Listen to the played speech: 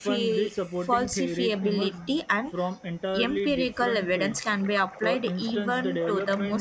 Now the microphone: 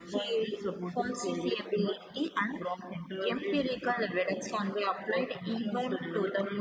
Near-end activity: none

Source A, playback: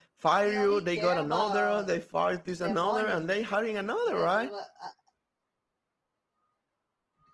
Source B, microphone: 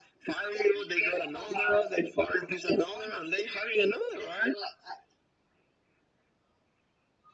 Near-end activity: none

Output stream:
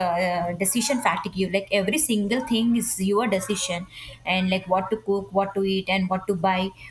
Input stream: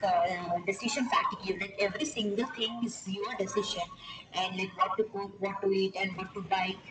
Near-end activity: none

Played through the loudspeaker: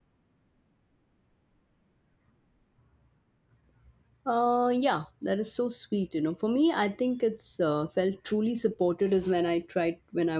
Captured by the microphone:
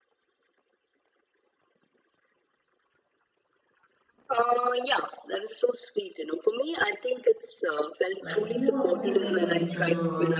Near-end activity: present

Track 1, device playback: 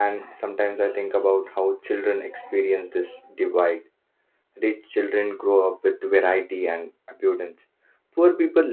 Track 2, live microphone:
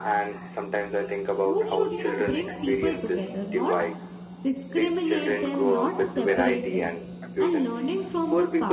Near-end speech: present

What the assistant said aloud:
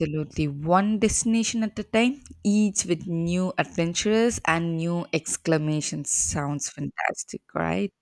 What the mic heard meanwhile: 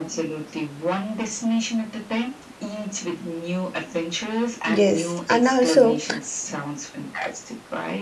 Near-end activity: present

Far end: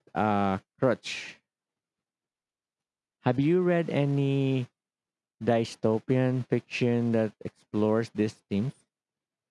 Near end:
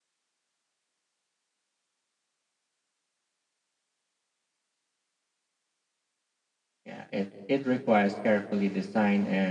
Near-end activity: present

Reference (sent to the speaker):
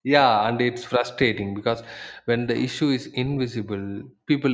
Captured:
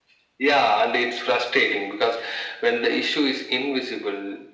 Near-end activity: none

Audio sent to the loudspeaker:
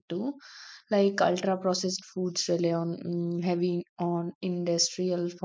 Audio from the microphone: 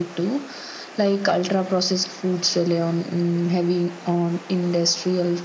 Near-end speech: none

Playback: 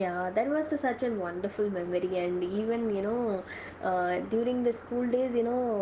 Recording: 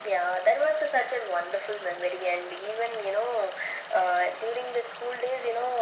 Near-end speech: none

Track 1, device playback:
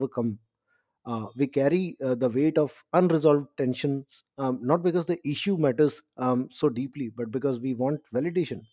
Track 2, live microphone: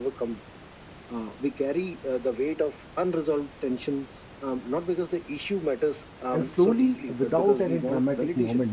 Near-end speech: present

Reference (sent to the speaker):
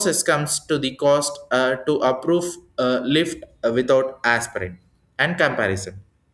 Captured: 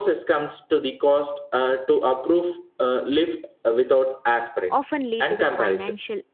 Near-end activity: present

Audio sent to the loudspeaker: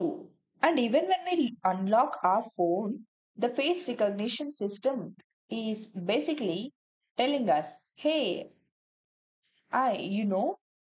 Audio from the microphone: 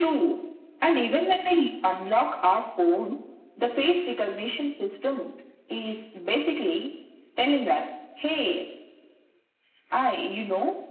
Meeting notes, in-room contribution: none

